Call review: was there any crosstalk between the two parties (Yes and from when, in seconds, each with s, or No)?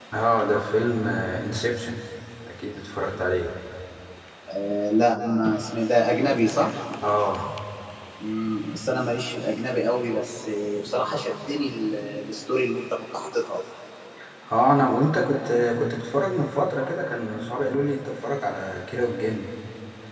No